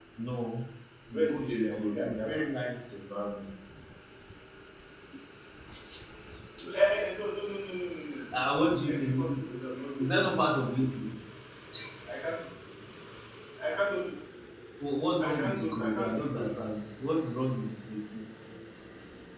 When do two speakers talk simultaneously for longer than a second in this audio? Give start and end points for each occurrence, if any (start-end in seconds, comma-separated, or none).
1.1-2.5, 15.2-16.7